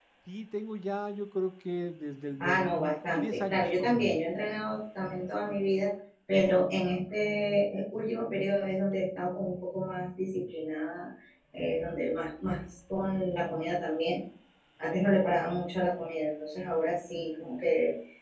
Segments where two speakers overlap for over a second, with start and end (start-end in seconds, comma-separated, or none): 2.4-4.2